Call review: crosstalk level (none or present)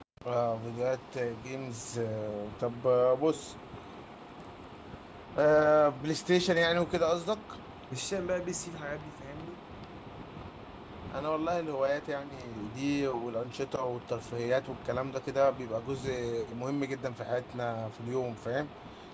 none